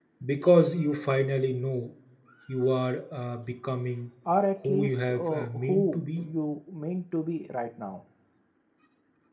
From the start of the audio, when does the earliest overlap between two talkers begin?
4.6 s

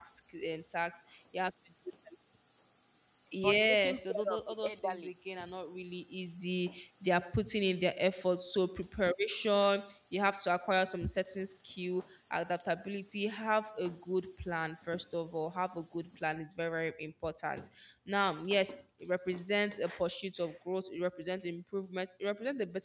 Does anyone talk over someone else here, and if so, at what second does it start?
3.4 s

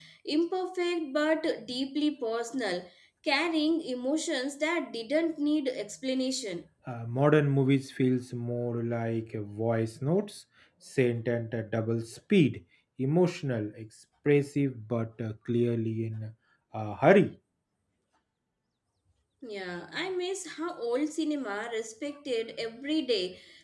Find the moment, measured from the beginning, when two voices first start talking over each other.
none

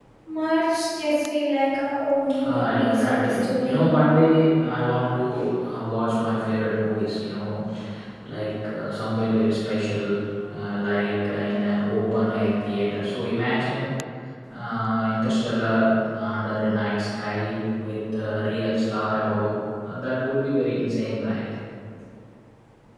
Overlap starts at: 2.3 s

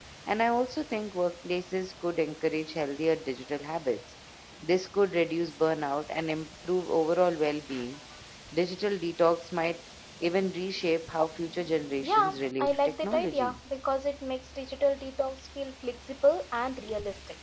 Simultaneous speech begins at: 12.0 s

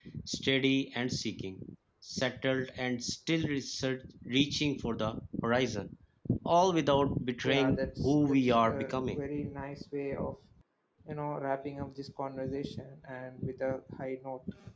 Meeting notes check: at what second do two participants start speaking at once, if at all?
7.4 s

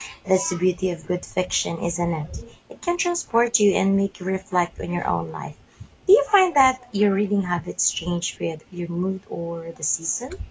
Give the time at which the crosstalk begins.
none

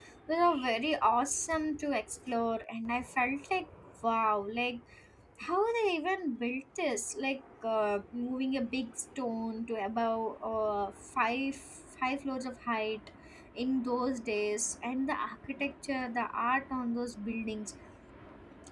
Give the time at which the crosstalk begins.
none

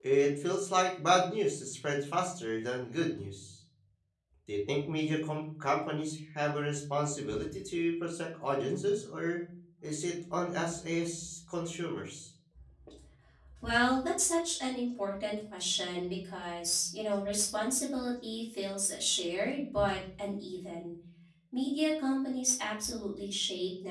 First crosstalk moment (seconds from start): none

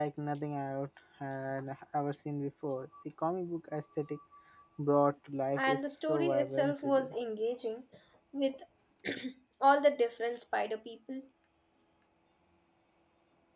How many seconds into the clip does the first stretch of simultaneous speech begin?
5.6 s

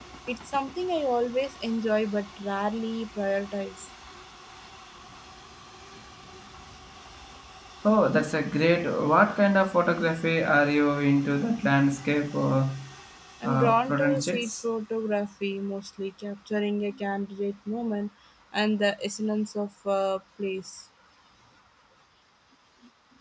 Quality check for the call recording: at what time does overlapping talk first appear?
13.4 s

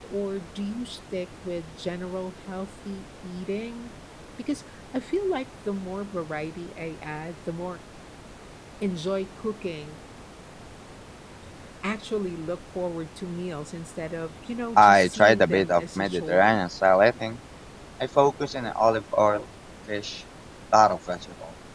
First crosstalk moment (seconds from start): 14.8 s

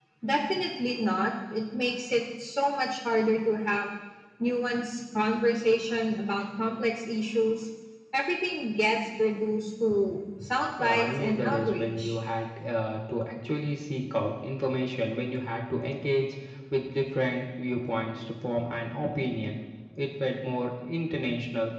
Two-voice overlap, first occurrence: 10.8 s

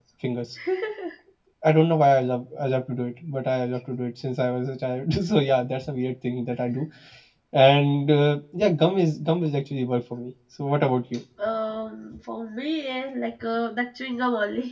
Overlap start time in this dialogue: none

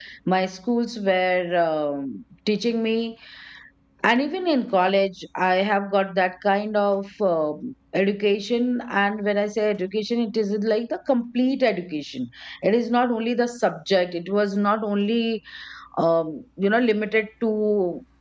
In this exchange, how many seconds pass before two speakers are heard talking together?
none

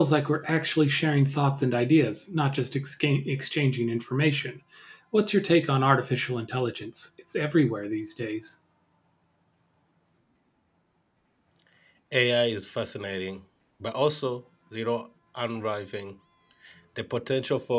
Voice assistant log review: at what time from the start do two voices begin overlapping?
none

